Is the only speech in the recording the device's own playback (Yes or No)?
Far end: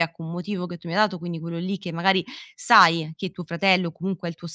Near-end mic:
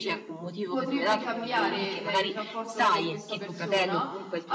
No